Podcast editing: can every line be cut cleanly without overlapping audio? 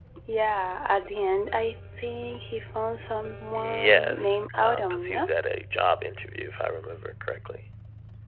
No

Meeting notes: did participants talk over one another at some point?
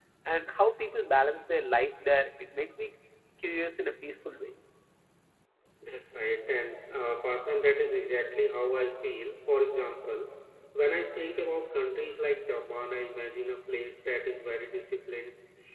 No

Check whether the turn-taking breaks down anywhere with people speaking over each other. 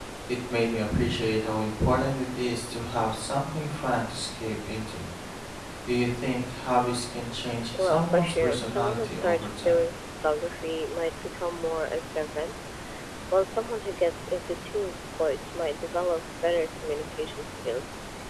Yes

